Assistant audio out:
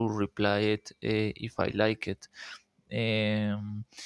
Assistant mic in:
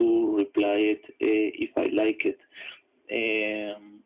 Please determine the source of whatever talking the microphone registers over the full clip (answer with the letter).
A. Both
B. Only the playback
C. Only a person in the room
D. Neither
B